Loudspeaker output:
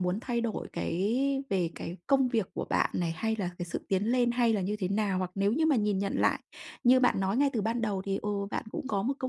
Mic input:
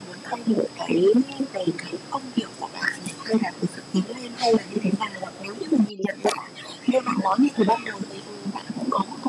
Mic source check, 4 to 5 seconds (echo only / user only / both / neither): echo only